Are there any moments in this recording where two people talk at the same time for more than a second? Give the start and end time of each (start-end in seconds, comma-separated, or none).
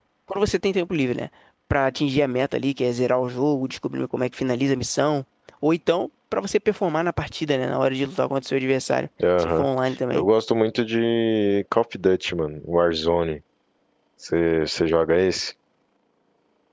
none